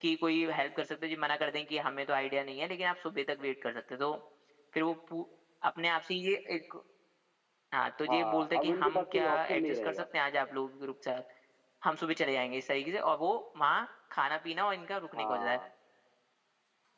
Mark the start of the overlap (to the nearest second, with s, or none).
8 s